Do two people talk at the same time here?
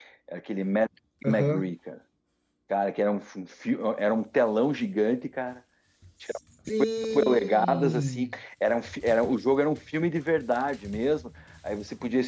Yes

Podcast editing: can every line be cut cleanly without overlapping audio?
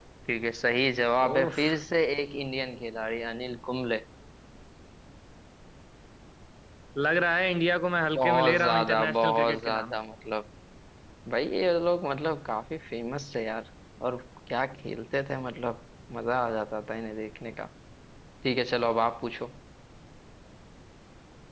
No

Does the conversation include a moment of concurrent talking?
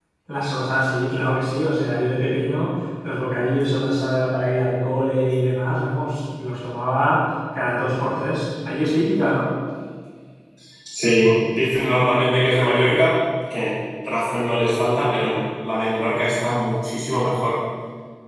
No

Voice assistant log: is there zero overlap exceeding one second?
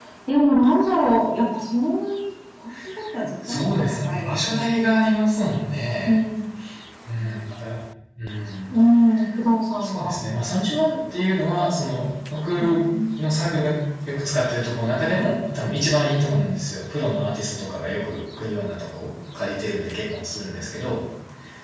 No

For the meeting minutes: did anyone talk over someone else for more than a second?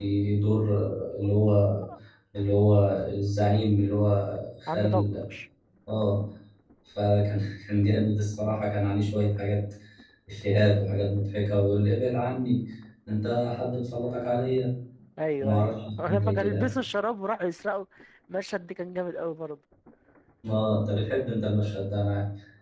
Yes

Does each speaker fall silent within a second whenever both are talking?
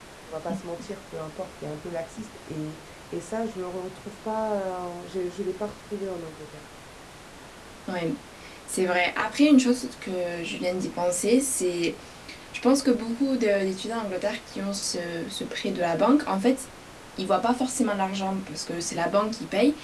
Yes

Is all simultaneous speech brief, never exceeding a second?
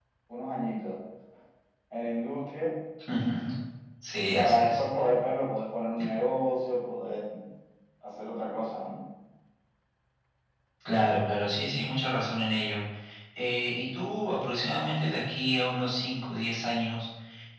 Yes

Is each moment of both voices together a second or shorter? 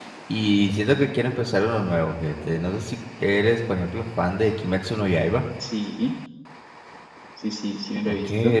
Yes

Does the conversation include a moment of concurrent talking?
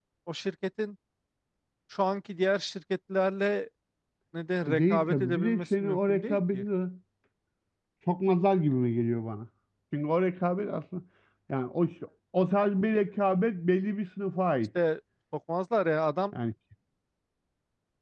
Yes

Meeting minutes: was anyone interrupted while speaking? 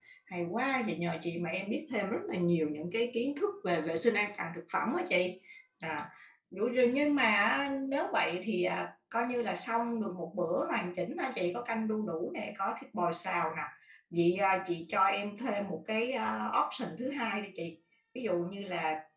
No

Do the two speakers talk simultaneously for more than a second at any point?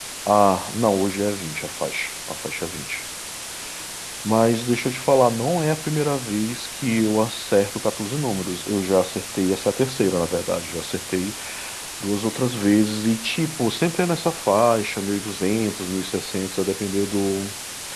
No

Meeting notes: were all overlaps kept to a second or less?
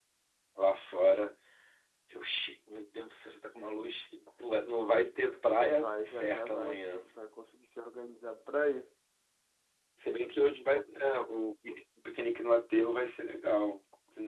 No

